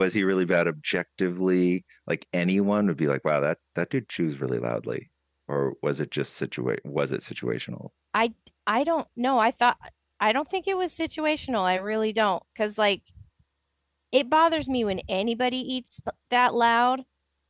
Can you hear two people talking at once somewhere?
No

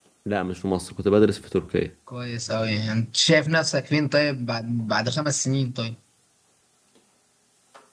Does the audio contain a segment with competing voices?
No

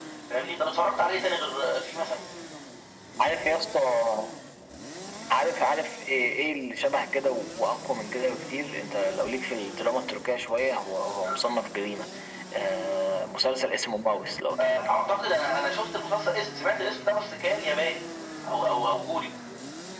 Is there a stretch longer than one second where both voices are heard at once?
No

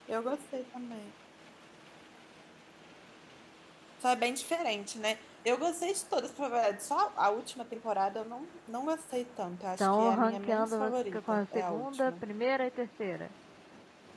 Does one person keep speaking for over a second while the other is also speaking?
Yes, from 9.8 s

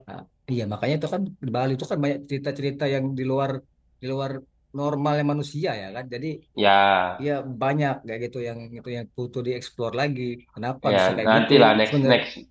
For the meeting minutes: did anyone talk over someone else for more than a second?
Yes, from 10.8 s

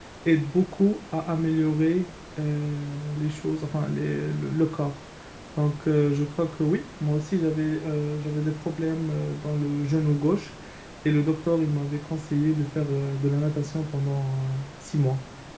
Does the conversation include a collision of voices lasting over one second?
No

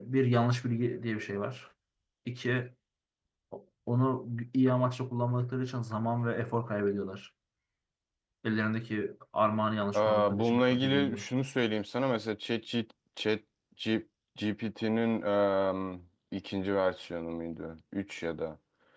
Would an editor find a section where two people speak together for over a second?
Yes, from 9.9 s

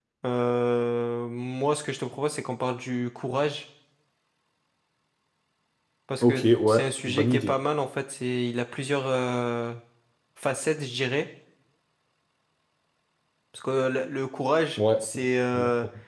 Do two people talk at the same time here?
Yes, from 6.2 s

